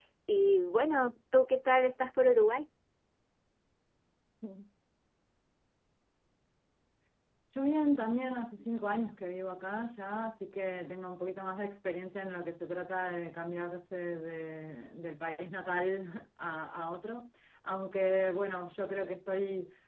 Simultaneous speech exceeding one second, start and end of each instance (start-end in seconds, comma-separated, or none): none